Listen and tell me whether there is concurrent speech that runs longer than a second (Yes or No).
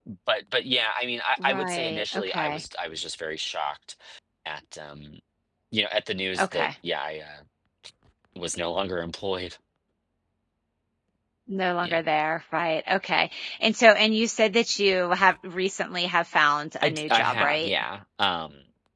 Yes